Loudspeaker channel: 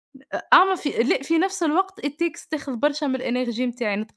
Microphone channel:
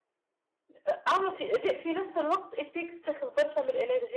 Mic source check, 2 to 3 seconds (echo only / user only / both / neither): echo only